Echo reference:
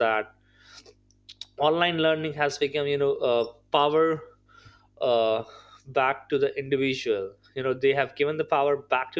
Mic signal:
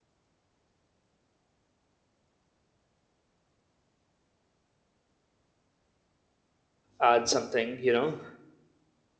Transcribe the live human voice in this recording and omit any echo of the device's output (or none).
add something. You know,